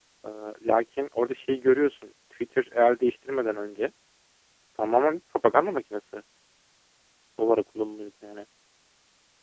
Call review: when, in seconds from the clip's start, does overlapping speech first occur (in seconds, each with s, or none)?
none